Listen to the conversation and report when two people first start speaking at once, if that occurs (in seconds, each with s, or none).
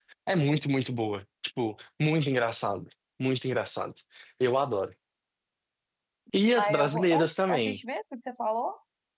6.5 s